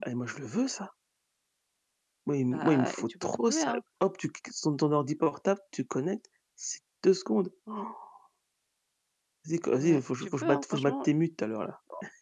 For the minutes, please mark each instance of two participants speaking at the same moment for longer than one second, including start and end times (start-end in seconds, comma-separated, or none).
2.5-3.8, 9.8-11.1